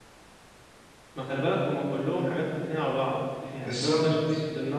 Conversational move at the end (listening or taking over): listening